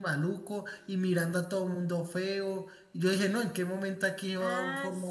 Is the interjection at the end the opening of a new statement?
Yes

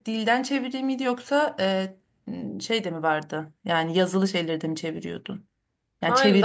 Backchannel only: No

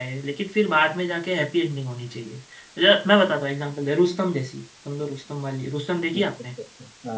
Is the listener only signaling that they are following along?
No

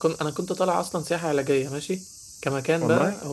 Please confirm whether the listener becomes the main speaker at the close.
No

